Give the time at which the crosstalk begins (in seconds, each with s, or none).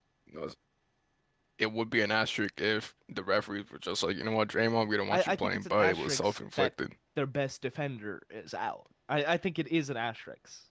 5.1 s